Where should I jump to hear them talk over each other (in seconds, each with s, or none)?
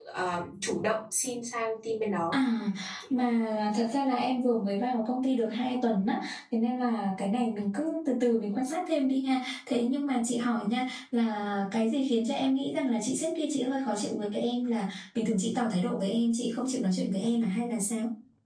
none